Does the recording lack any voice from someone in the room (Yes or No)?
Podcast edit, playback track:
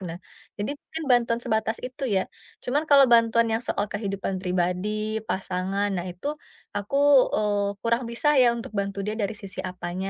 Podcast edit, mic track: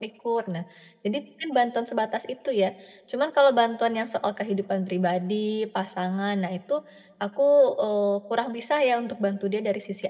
Yes